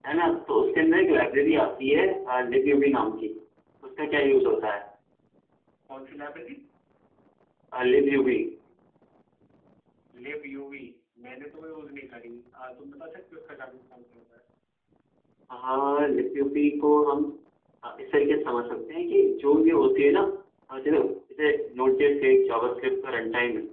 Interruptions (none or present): none